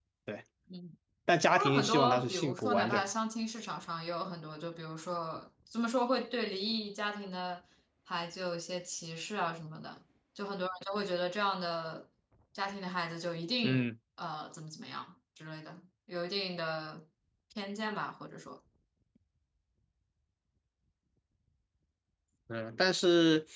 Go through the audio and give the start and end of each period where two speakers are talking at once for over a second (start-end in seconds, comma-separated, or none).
1.5-3.0